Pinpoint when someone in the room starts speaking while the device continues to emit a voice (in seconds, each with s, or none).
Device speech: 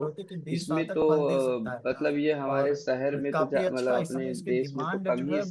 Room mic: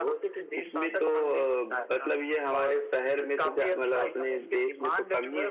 none